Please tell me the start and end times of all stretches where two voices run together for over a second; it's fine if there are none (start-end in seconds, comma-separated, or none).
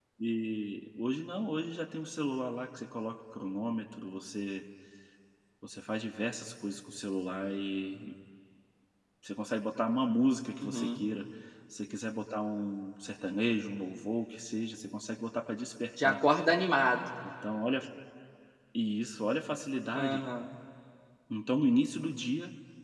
none